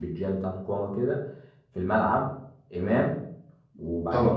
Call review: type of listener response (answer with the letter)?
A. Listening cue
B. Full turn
A